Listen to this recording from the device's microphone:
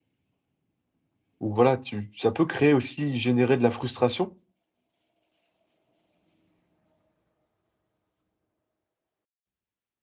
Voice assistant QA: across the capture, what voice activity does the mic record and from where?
user only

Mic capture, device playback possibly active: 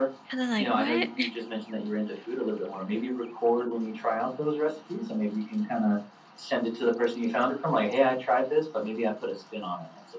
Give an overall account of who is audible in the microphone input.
both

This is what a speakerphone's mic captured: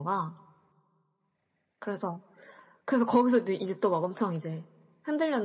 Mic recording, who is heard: echo only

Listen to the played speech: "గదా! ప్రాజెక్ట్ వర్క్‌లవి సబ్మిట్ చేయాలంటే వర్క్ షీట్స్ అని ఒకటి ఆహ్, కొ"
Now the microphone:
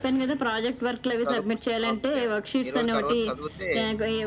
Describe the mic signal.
both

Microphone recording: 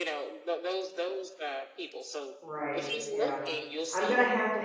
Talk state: both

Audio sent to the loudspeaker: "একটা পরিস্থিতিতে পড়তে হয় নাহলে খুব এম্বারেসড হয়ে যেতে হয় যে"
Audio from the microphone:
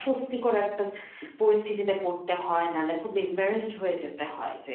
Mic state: echo only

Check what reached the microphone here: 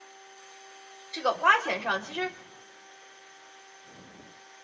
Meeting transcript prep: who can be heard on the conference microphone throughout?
user only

